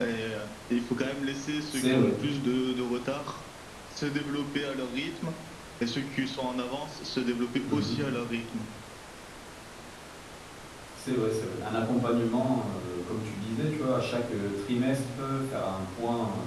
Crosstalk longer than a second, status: none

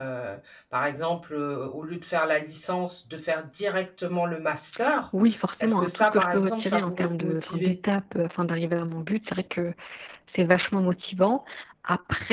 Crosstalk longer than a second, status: present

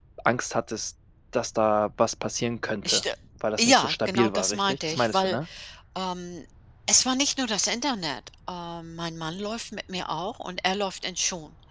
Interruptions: present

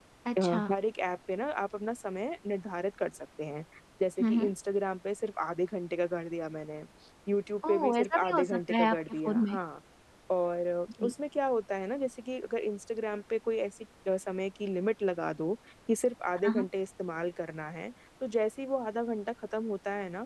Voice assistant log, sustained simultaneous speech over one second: present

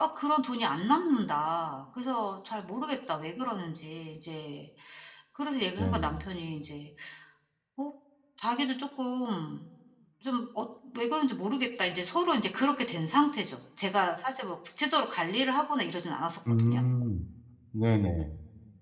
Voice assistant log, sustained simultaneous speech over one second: none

